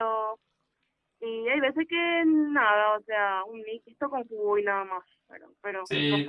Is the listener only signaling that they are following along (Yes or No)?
No